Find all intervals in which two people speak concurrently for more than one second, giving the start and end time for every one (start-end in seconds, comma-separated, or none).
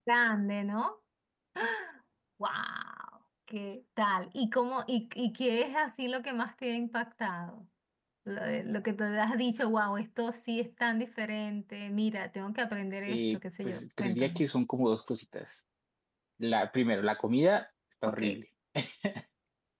13.1-14.4